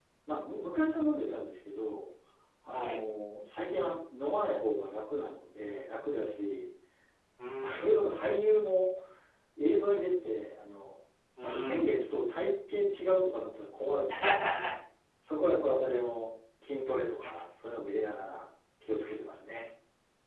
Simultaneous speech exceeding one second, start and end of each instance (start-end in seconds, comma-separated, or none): none